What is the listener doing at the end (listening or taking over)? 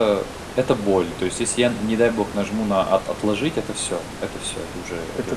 taking over